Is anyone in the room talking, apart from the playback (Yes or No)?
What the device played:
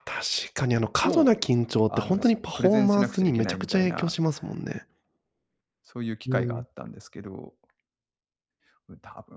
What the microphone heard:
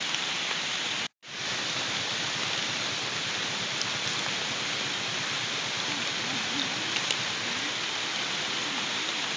No